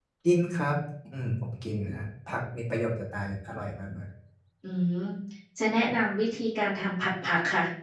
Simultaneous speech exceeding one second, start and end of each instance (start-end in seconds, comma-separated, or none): none